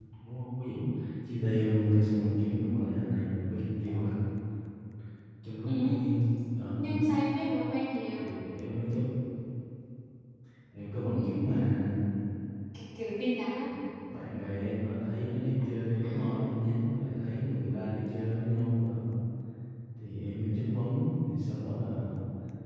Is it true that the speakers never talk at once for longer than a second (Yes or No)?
Yes